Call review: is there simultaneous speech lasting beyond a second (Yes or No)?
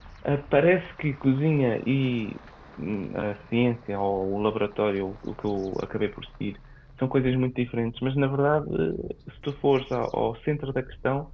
No